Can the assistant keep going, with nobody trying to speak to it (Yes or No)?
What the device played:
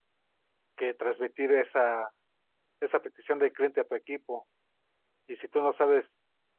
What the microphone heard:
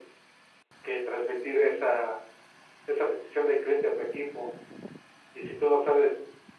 Yes